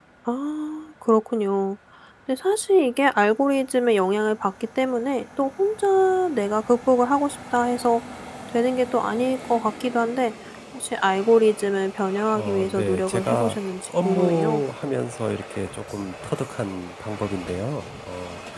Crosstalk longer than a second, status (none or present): present